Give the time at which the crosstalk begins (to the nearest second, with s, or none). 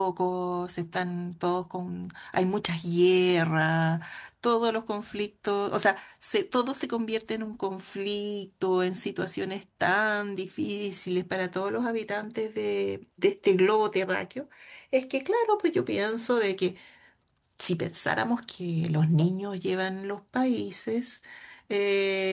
none